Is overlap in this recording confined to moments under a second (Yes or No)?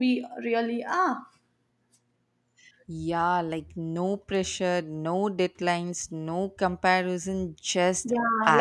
Yes